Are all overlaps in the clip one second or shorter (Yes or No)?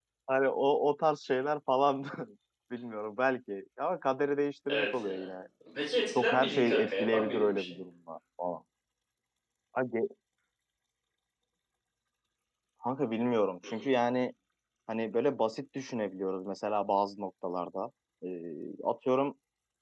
No